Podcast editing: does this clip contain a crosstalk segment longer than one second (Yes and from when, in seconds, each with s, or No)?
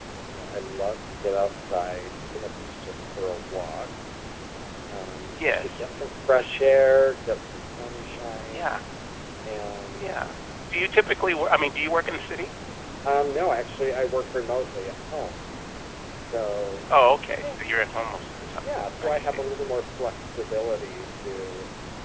No